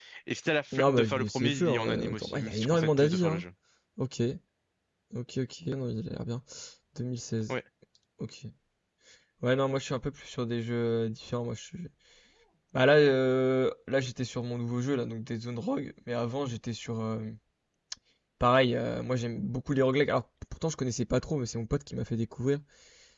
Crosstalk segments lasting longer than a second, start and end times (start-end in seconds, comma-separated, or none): 0.7-3.4